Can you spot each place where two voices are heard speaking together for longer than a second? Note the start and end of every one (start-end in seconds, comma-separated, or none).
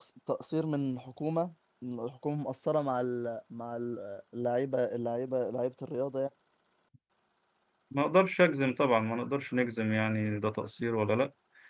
none